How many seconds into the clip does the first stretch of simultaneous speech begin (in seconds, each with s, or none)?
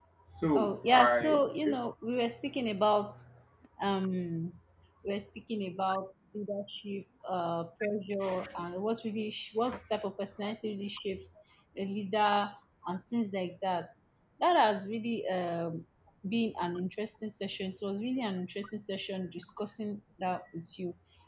0.5 s